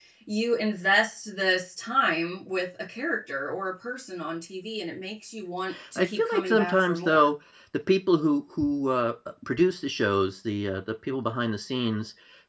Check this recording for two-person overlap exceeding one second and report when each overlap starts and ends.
6.0-7.3

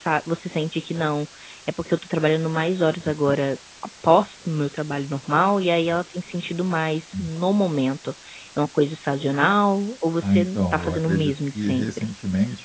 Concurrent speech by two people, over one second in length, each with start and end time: 10.2-12.1

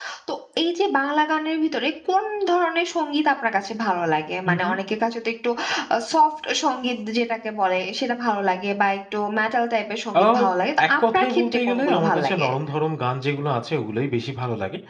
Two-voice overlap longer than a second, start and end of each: 11.0-12.5

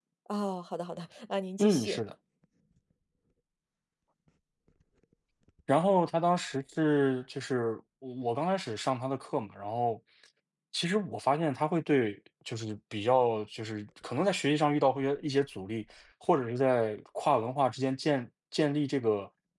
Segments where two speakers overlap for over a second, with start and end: none

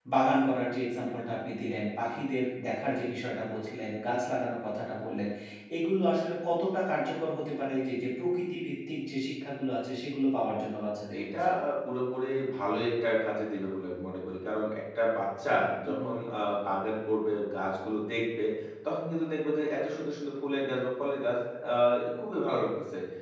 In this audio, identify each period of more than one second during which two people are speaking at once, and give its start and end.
none

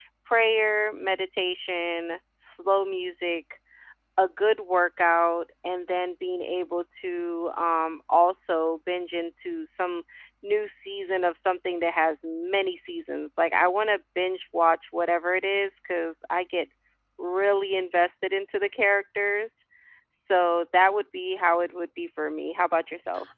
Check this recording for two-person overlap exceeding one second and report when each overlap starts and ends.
none

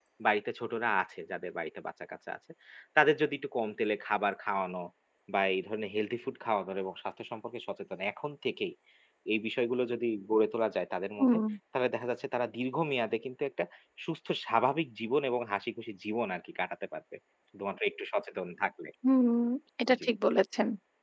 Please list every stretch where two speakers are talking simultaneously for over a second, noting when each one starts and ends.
none

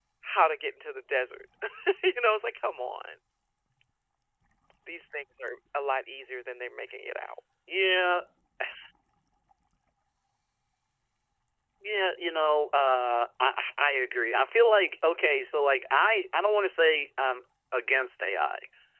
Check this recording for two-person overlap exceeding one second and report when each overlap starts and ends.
none

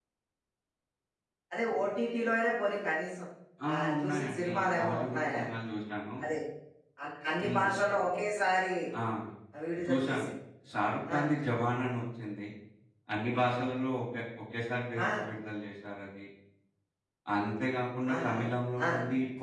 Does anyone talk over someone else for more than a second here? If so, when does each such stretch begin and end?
3.7-5.4

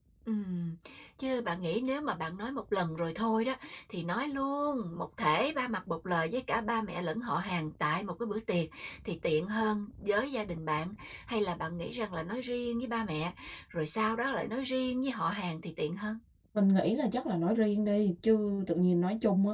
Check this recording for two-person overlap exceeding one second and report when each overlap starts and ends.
none

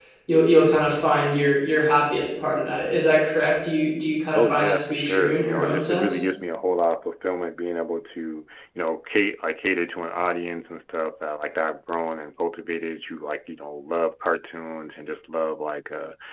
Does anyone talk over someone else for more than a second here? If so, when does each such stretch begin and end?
4.3-6.2

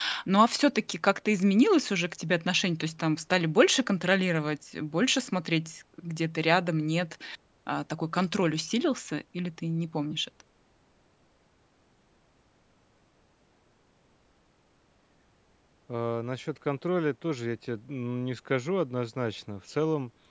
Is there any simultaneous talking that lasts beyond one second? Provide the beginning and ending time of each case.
none

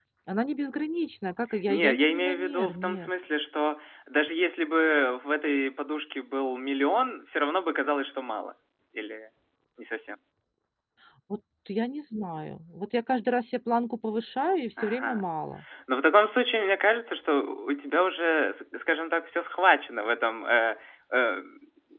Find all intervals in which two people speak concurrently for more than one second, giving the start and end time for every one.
1.7-3.1

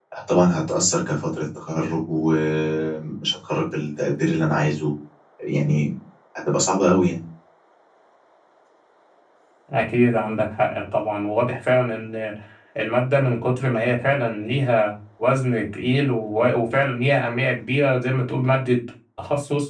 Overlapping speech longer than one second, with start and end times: none

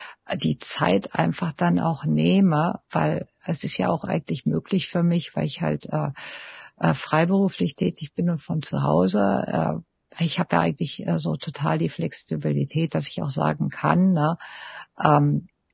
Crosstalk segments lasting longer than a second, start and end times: none

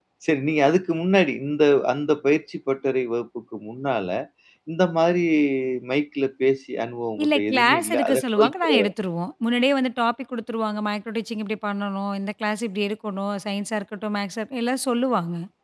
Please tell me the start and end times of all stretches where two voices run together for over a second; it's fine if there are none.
7.2-8.9

